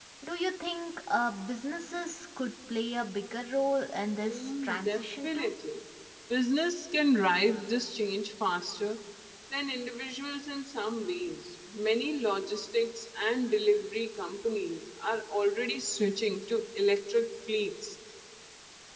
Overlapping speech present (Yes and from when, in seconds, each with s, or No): Yes, from 4.2 s